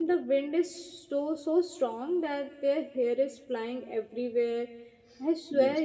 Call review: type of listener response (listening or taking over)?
listening